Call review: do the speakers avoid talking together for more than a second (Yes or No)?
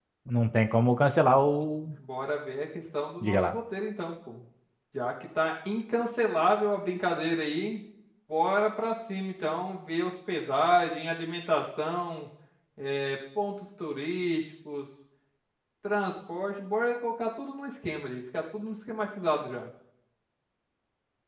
Yes